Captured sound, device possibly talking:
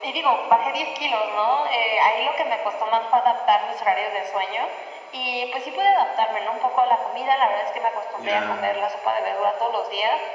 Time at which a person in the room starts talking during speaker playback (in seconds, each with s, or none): 8.1 s